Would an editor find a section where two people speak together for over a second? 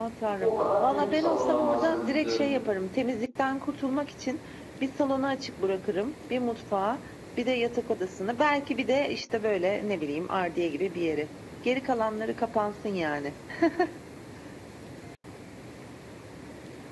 Yes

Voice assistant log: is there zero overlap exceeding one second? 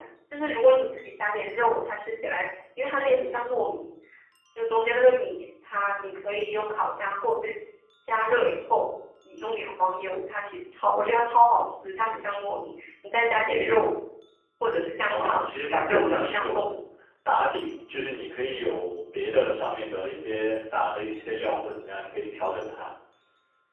No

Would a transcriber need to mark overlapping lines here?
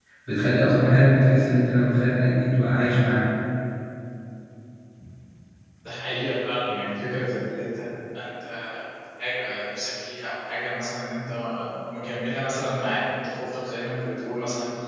No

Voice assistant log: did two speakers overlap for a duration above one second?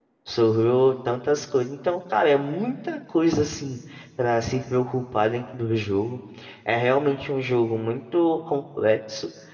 No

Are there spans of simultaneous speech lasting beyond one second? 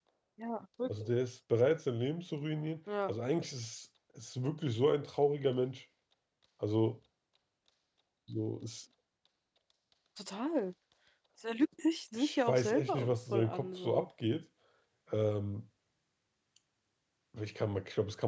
Yes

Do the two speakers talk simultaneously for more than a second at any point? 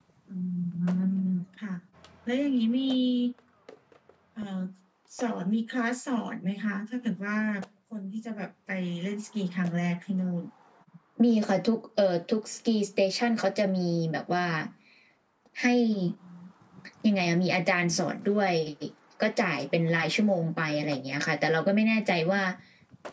No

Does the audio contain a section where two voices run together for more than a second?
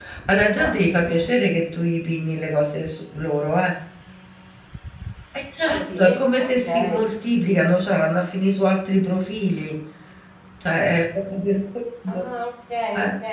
Yes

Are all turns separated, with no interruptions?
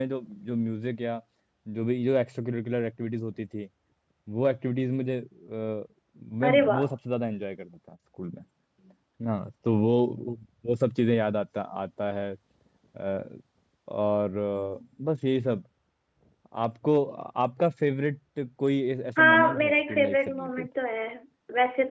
No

